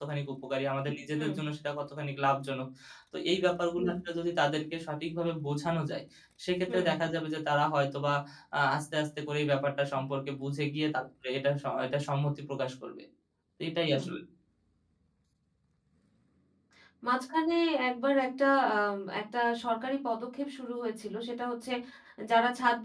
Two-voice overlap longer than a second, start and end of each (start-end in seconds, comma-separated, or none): none